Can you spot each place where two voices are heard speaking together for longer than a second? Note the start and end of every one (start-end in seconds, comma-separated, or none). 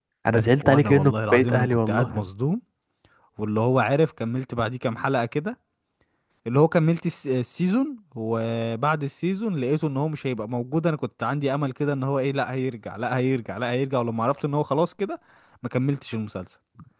0.6-2.2